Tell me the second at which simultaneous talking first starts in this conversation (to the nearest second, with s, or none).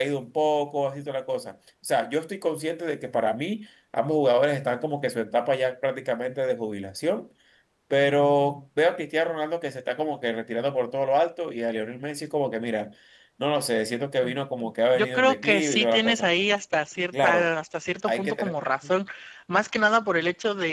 15 s